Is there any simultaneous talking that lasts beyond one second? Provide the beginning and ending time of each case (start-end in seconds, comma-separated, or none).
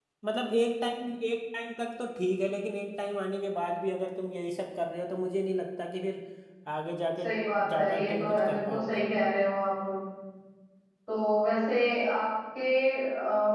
7.7-9.0